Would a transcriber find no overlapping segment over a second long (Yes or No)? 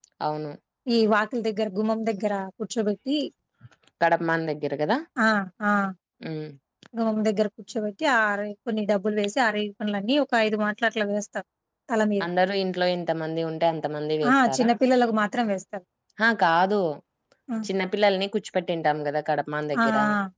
Yes